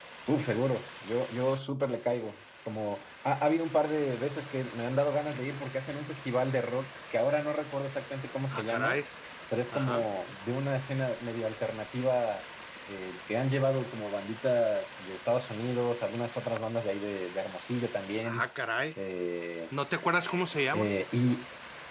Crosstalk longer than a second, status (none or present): none